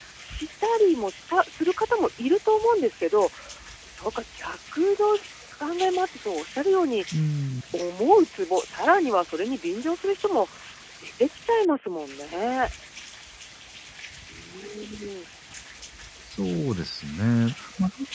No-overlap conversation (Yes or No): Yes